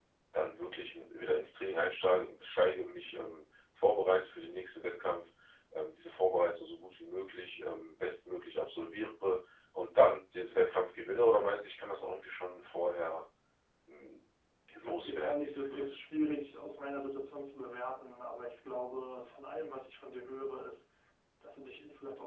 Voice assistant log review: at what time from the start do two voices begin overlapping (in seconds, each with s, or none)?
14.7 s